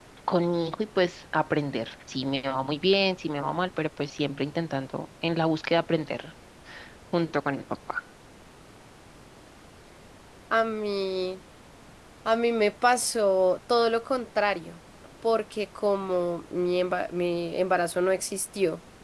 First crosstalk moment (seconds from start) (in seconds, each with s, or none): none